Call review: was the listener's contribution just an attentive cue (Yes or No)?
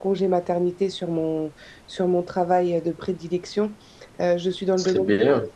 Yes